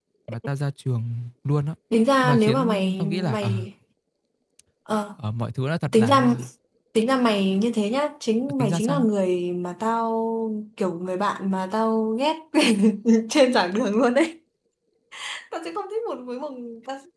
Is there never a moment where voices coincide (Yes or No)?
No